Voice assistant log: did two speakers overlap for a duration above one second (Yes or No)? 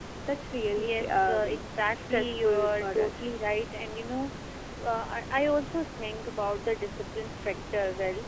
Yes